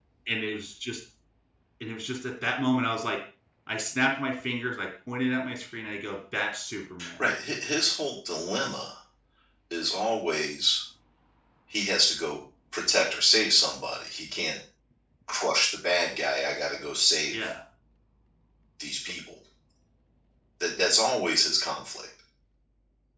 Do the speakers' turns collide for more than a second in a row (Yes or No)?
No